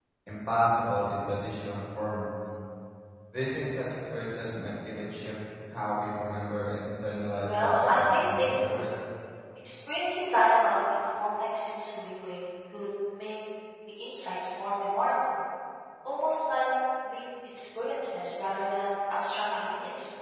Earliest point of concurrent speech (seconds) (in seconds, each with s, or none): 7.4 s